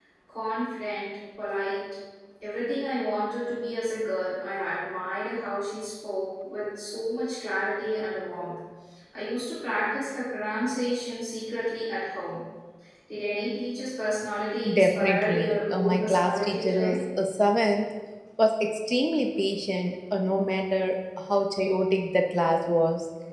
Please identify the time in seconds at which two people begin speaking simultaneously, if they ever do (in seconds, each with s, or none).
14.7 s